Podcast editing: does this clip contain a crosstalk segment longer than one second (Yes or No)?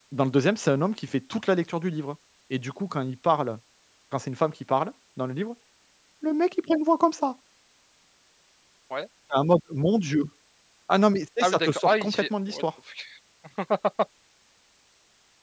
Yes